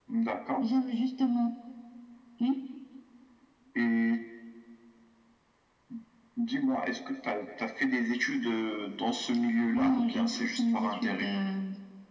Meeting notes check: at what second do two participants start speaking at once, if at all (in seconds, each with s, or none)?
9.7 s